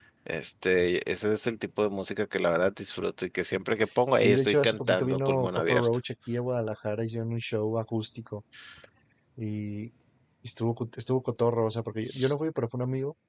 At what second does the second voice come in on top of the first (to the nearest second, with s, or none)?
4 s